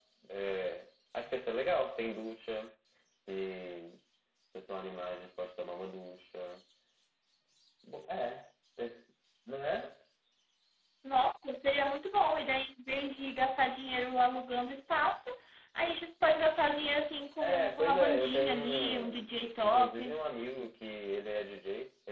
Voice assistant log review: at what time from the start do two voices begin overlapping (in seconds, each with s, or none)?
17.4 s